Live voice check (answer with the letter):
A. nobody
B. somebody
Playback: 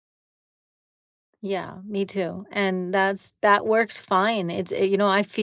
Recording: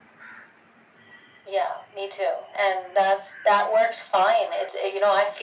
A